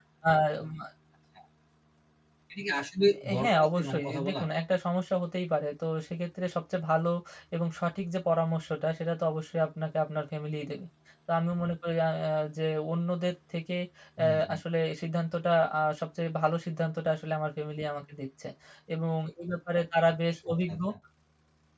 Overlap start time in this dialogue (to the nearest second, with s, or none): 3 s